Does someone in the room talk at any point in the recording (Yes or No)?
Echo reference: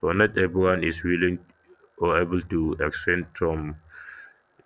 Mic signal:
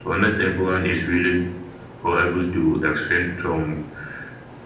No